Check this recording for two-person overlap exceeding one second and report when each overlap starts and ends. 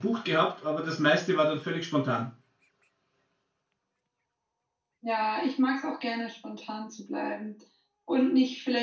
none

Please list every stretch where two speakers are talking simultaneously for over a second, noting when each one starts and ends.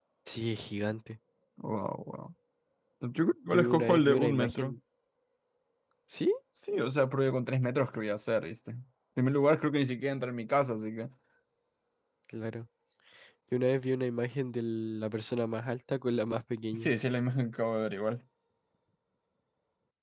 3.5-4.8

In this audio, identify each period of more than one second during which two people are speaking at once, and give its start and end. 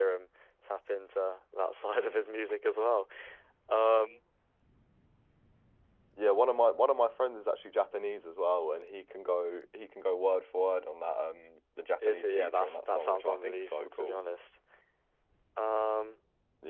12.1-14.2

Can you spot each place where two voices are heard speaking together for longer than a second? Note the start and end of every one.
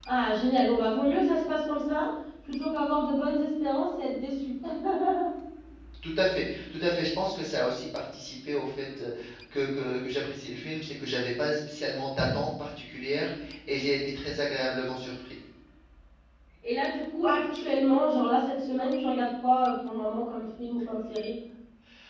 none

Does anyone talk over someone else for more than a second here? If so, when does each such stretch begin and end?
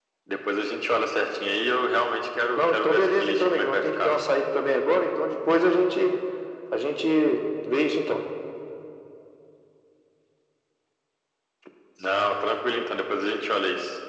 2.6-4.1

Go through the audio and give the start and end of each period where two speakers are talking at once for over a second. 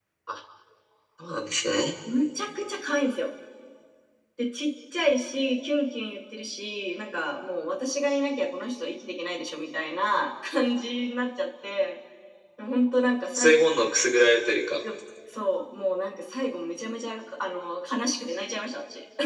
none

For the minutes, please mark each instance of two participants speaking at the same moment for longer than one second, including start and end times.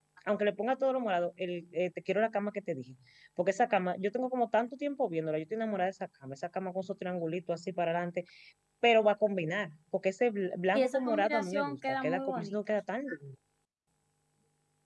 10.7-12.6

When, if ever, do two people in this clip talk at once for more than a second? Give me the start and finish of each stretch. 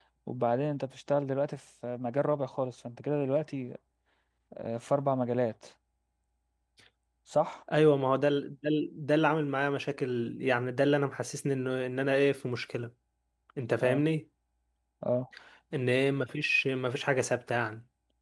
none

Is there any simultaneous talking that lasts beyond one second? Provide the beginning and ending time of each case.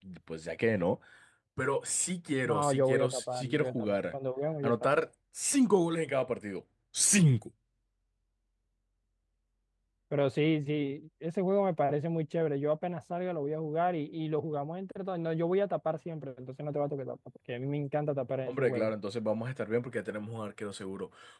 2.5-4.1

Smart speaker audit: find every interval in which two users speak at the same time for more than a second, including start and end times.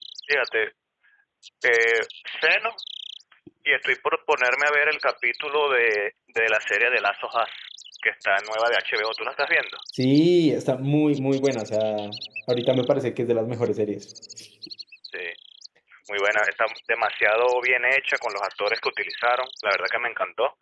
none

